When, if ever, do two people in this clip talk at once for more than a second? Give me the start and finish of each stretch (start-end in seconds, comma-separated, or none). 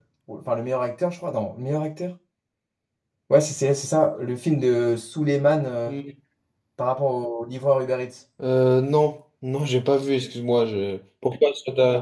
none